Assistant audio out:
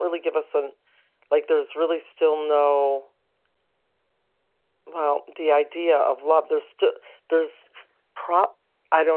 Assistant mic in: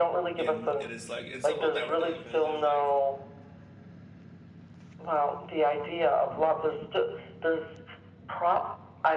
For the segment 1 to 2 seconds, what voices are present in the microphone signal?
both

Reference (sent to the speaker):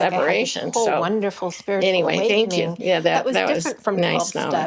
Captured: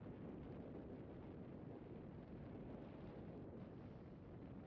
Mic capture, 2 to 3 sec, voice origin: neither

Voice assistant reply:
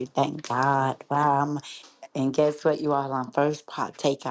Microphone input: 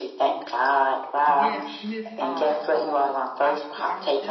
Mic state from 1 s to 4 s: both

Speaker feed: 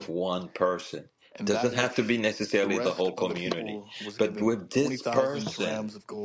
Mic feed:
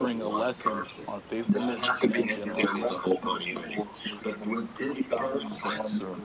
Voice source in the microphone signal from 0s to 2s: both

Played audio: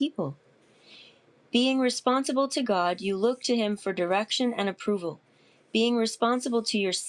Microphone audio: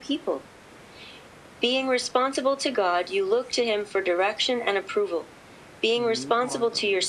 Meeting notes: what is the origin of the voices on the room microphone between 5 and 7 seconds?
both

